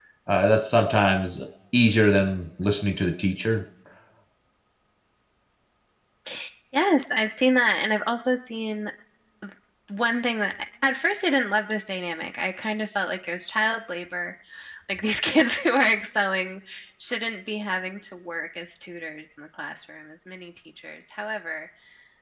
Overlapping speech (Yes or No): No